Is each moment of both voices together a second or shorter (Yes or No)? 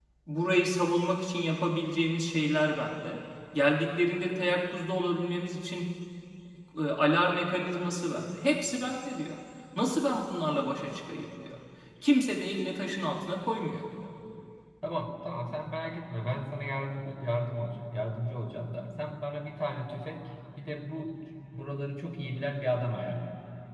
Yes